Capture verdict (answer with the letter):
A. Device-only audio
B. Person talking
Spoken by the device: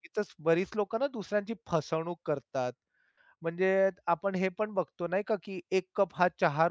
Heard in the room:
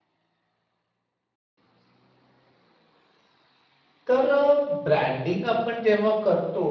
B